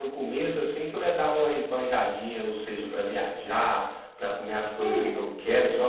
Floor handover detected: No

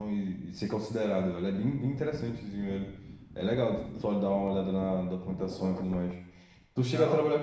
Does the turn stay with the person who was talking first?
Yes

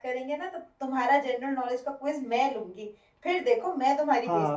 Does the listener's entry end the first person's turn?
Yes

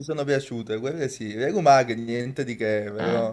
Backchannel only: Yes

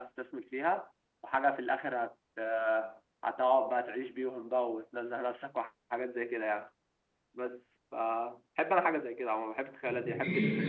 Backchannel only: No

